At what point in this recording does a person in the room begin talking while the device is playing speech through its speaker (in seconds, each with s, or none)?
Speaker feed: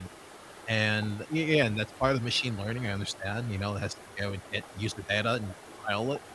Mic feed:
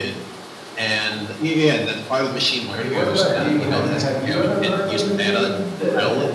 2.7 s